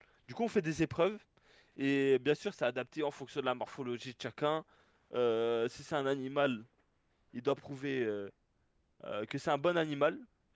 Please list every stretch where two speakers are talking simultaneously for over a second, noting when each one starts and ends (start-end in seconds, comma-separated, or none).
none